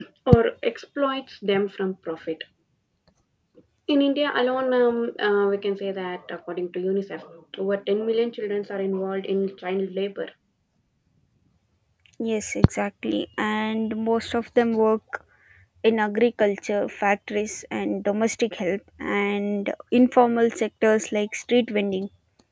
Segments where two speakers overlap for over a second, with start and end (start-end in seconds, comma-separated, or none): none